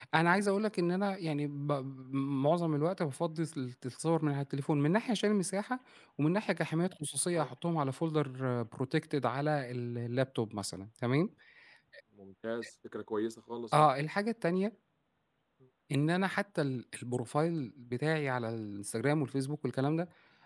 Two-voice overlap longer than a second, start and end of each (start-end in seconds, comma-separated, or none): none